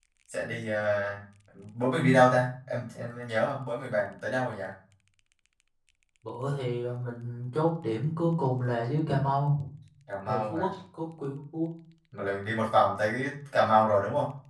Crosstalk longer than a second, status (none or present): none